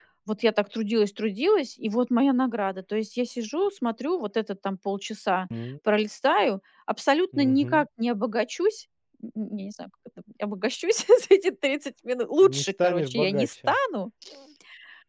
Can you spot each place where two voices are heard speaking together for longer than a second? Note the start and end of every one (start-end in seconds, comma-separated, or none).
12.4-13.8